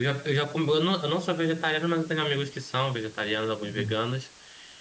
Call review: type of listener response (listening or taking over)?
listening